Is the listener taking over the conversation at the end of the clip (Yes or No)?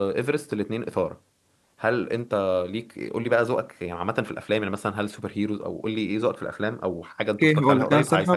Yes